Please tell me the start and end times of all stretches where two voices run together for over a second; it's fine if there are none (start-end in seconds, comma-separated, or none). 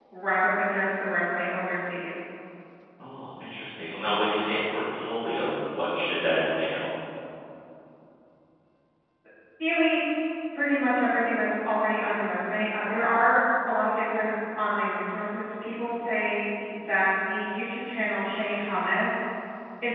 none